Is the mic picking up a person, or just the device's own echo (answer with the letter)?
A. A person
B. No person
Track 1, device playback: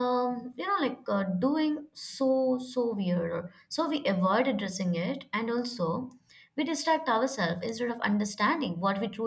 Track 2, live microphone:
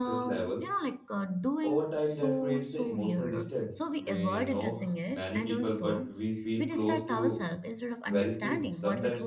A